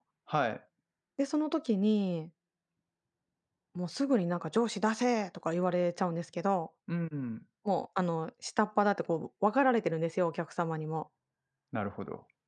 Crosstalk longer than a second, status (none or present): none